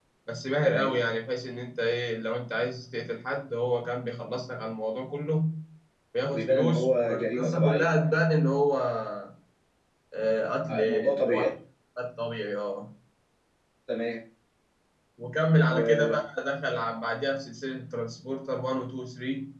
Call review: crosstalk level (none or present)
present